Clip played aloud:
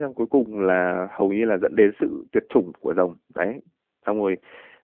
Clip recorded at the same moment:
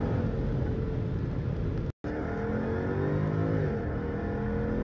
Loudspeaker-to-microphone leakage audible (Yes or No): No